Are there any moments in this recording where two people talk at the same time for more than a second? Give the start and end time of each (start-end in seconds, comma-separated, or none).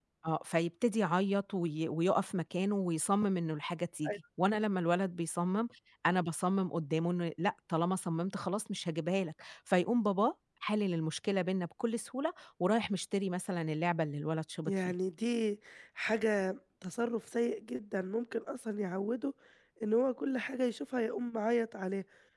none